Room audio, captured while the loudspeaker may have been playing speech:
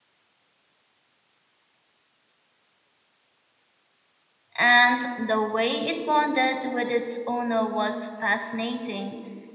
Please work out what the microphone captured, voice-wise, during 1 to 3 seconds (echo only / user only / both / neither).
neither